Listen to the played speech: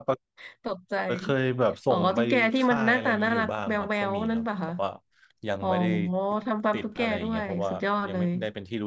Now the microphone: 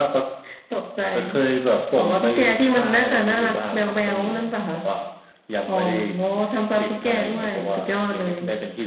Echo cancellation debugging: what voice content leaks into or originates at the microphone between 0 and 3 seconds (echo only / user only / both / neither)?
echo only